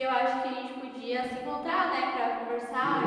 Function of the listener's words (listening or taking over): taking over